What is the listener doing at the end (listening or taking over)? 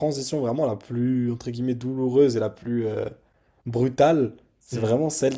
listening